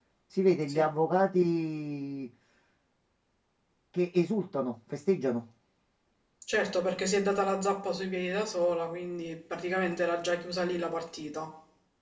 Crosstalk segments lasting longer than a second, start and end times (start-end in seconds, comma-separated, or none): none